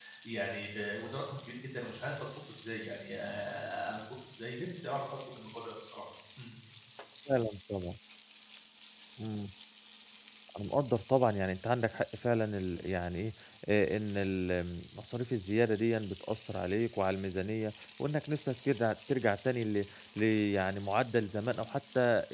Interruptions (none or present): none